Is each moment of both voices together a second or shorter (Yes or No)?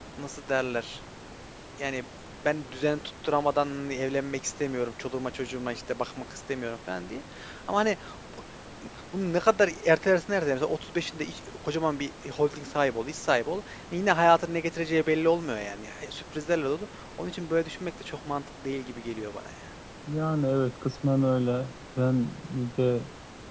Yes